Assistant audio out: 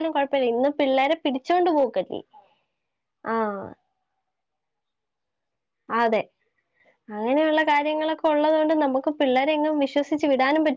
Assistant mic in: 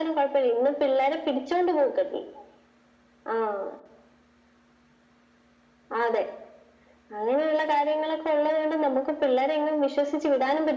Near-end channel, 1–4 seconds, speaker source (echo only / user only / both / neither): echo only